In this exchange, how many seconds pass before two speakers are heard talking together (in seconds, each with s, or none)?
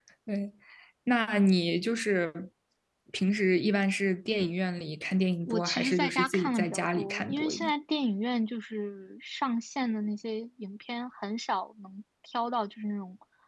5.5 s